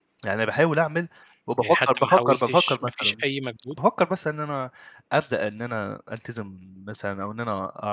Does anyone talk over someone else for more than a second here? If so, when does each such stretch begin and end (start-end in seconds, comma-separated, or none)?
1.6-3.2